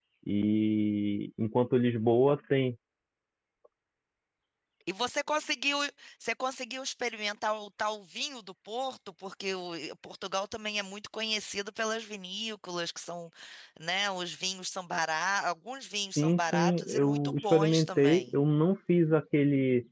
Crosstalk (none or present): present